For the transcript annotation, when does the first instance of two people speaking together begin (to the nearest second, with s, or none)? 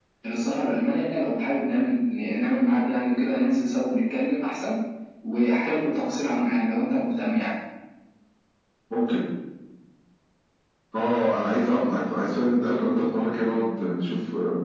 none